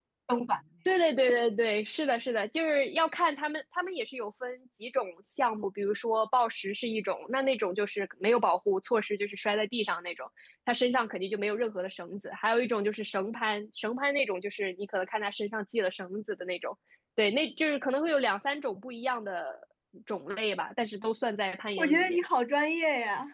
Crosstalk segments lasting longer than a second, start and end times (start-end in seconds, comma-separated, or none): none